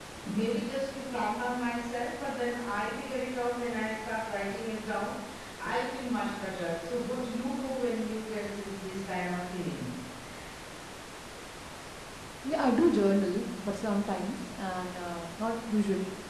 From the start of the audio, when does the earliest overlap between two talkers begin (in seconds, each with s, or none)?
none